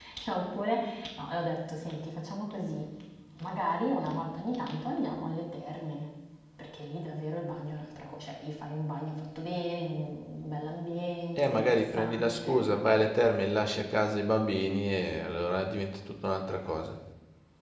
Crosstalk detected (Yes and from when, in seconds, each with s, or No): Yes, from 11.4 s